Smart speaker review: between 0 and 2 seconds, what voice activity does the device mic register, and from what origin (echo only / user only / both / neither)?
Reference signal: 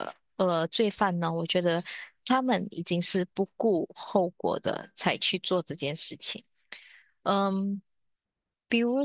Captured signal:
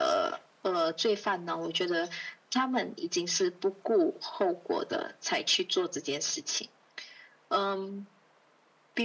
echo only